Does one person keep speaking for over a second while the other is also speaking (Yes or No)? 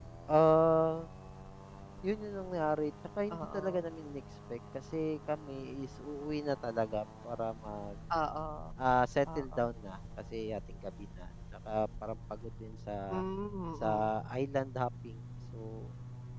No